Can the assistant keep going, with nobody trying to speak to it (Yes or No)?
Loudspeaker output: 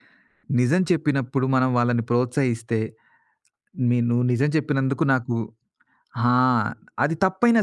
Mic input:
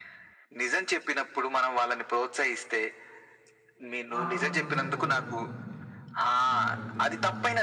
No